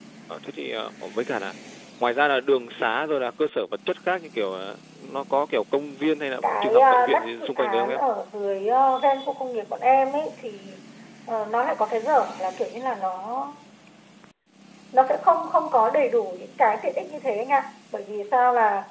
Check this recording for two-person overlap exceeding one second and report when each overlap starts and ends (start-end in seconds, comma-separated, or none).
6.4-8.0